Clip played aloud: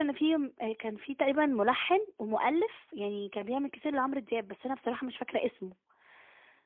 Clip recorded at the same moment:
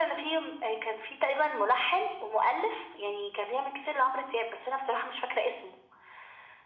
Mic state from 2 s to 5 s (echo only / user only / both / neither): echo only